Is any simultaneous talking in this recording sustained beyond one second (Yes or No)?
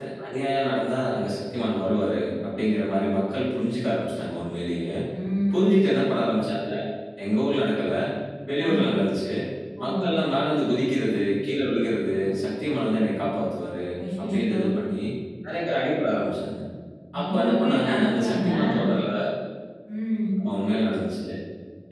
Yes